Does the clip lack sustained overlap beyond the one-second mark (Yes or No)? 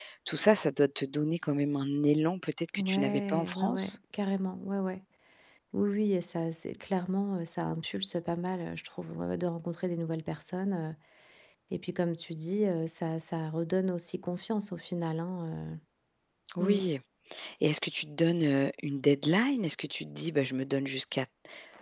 No